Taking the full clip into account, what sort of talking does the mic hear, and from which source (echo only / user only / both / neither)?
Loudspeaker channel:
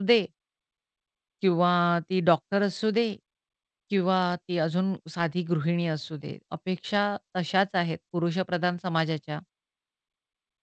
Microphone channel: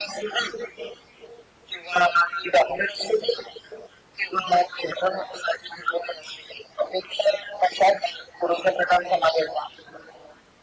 echo only